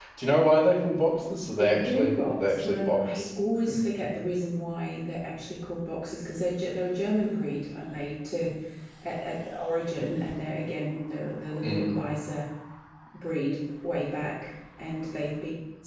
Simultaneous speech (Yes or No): Yes